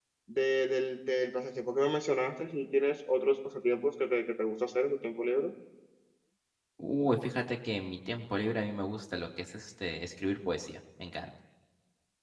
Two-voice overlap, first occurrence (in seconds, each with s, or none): none